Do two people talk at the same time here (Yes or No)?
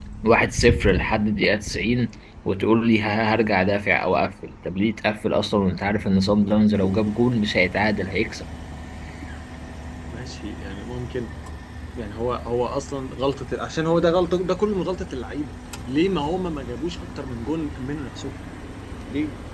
No